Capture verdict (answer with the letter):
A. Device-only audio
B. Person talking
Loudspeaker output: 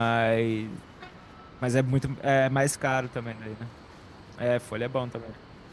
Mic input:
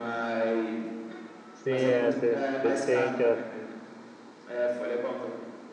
B